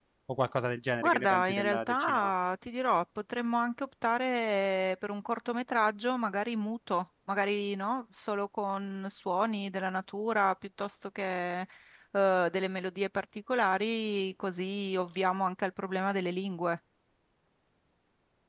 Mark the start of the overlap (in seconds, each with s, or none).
1.0 s